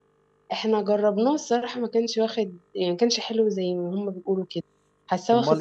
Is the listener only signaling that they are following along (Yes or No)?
No